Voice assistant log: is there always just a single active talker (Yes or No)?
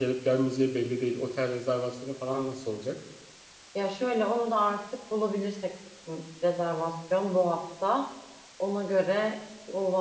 Yes